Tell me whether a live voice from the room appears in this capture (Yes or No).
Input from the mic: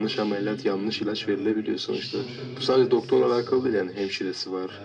Yes